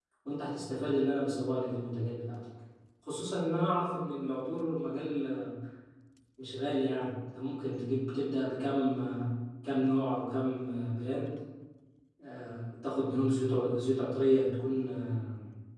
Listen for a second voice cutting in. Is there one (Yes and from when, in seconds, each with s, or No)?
No